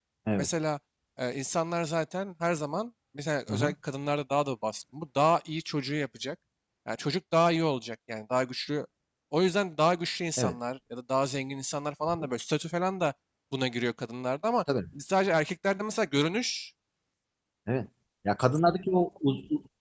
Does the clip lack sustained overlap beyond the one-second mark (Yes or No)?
Yes